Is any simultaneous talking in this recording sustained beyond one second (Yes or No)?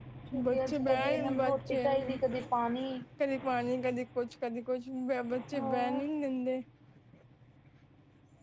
Yes